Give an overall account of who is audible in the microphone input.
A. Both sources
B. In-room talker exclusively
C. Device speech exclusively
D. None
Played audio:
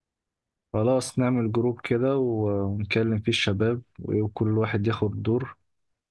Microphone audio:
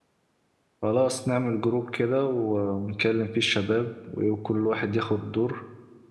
C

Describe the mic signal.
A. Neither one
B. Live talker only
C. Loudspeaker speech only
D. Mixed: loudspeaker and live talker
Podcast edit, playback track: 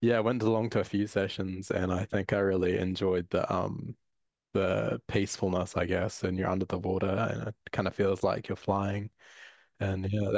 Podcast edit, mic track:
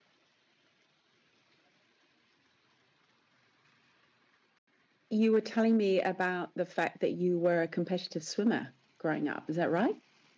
B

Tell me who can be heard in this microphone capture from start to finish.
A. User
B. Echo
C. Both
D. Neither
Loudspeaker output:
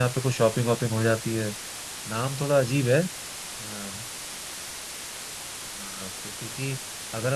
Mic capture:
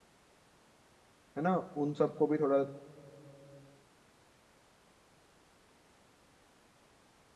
A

